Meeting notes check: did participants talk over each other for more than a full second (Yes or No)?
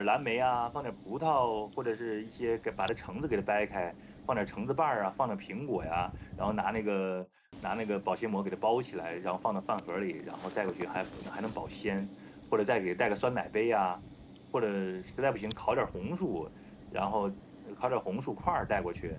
No